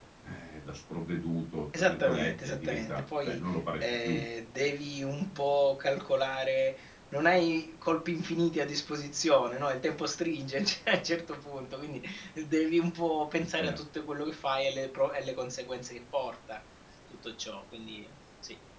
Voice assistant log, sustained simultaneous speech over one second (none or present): present